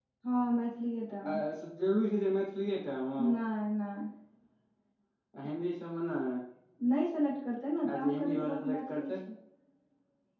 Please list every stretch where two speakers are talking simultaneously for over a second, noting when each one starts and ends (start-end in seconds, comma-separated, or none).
7.9-9.2